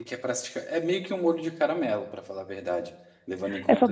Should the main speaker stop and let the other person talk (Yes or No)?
Yes